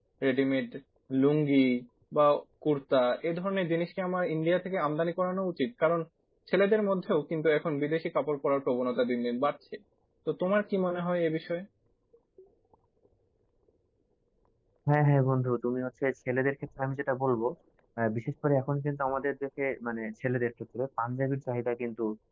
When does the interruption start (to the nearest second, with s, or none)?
none